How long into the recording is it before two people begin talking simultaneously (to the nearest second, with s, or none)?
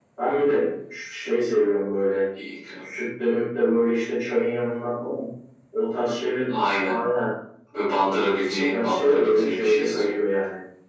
9 s